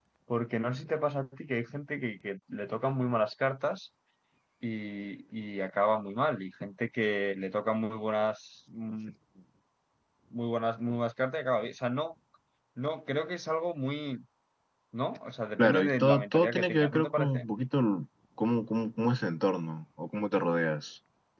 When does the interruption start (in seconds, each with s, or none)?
15.6 s